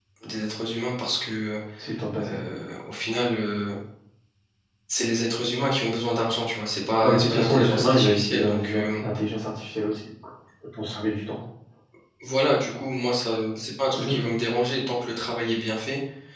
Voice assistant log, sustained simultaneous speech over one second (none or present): present